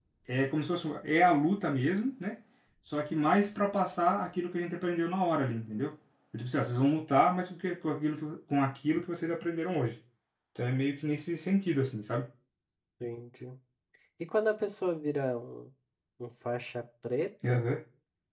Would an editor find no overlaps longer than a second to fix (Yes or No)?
Yes